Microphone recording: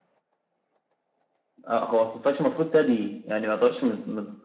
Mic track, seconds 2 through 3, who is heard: echo only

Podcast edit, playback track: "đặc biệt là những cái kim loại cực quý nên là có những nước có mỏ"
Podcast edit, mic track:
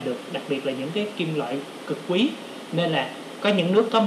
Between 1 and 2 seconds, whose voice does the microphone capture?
echo only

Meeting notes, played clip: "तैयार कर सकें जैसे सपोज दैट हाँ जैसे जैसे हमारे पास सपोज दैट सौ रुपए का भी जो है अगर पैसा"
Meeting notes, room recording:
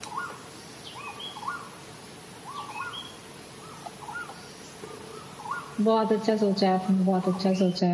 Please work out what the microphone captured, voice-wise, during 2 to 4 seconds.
neither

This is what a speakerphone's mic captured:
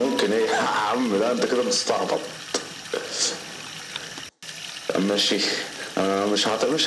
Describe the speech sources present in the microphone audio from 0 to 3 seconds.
echo only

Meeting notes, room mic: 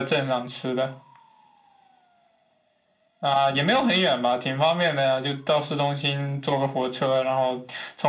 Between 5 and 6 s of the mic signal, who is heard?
echo only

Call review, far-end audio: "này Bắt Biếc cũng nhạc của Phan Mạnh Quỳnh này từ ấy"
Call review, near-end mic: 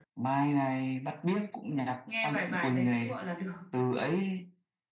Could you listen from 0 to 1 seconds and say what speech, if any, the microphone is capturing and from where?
echo only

